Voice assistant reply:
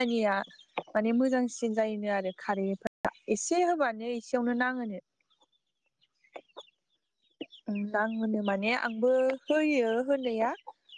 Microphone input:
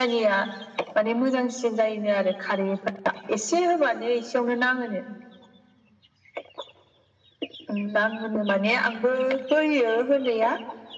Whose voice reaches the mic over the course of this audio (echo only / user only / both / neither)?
echo only